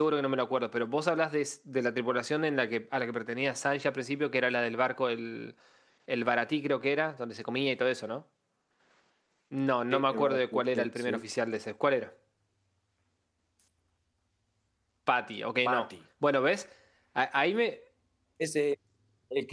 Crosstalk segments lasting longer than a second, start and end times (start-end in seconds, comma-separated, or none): 9.9-11.2